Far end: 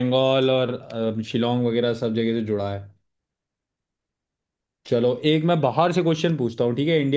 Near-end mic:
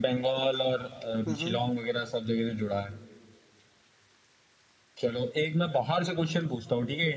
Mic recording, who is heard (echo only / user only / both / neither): both